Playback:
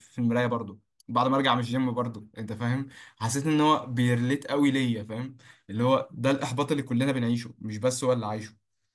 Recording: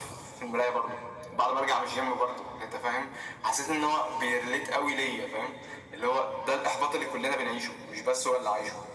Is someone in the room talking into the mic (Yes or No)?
No